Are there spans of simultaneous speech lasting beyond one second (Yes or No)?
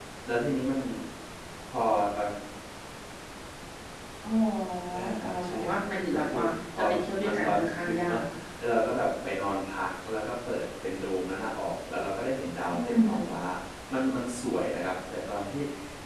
Yes